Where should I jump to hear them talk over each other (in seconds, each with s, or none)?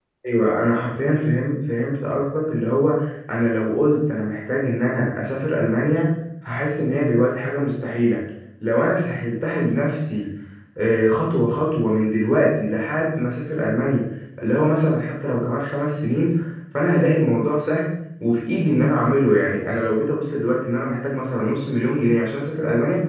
none